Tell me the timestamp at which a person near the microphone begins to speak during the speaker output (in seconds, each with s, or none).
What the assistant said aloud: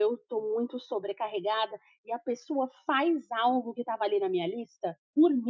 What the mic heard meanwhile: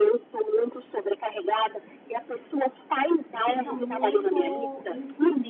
3.4 s